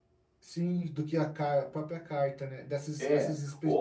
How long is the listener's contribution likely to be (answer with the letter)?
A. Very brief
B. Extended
B